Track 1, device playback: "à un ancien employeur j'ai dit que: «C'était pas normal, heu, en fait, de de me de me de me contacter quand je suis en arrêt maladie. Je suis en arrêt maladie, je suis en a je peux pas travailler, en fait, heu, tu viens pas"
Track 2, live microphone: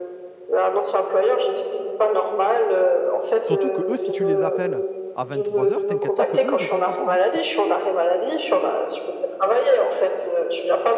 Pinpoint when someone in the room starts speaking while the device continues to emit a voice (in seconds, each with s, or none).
3.4 s